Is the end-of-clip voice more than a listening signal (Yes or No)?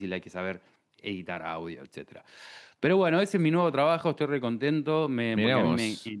No